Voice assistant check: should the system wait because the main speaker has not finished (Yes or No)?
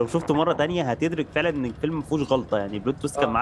No